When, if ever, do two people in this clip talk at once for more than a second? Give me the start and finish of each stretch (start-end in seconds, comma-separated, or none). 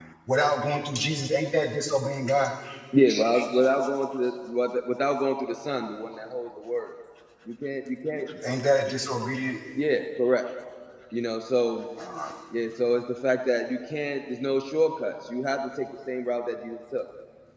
none